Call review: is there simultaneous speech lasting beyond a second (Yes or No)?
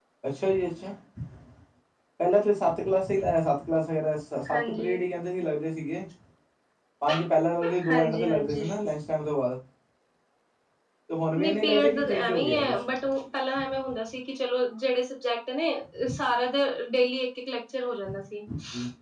Yes